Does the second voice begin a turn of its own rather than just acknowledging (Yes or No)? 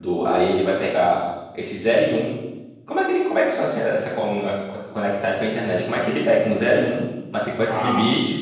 No